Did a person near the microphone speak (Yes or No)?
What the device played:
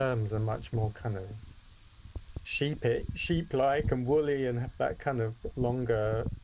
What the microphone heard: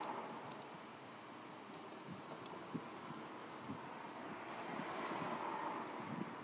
No